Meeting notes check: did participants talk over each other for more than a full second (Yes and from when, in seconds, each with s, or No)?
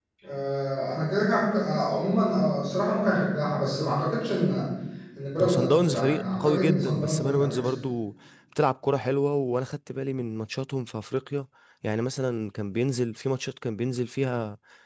Yes, from 5.4 s